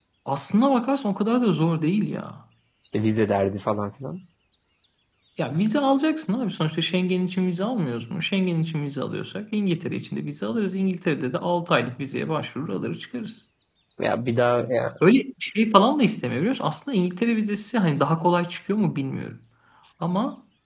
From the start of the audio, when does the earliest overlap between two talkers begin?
none

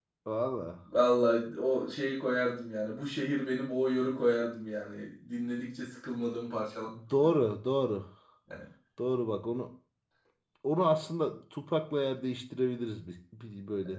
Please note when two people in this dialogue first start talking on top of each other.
none

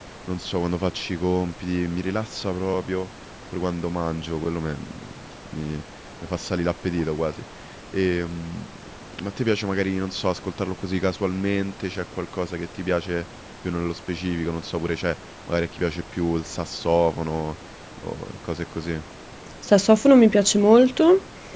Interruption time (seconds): none

